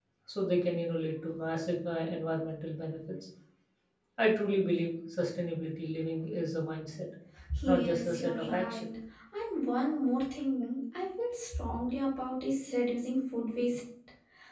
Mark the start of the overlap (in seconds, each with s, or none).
7.7 s